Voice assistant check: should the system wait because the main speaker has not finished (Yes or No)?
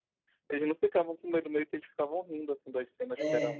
Yes